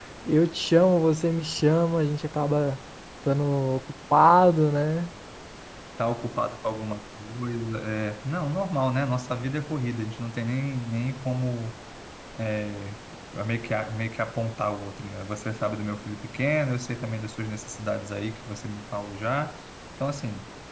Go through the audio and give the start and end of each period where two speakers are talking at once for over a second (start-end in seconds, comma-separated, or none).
none